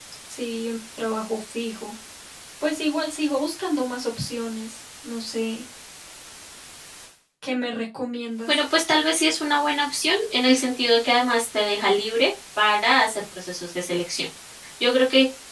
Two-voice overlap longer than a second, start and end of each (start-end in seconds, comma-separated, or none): none